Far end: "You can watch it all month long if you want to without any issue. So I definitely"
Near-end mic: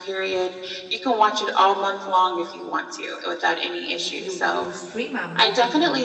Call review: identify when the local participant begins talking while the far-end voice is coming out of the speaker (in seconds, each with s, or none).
3.9 s